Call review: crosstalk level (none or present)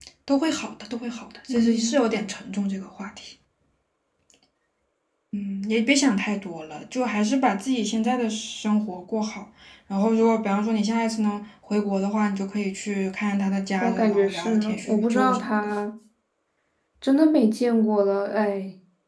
present